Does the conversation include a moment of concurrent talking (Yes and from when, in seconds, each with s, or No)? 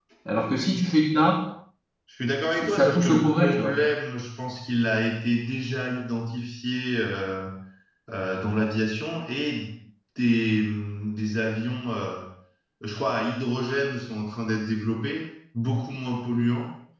Yes, from 2.5 s